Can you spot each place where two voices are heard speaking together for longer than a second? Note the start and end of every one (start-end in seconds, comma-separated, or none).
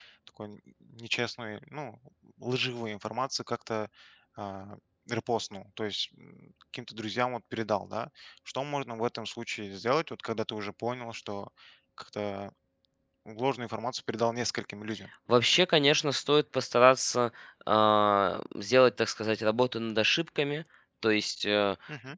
none